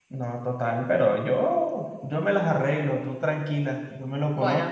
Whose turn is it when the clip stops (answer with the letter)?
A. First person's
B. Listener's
A